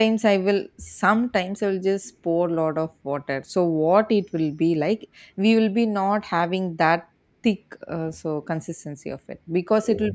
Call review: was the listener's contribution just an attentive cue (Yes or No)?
Yes